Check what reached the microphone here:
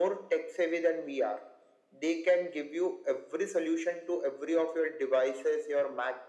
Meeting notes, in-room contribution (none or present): none